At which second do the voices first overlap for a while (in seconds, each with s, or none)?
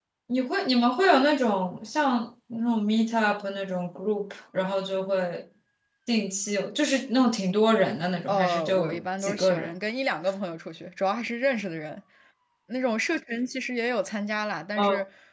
8.3 s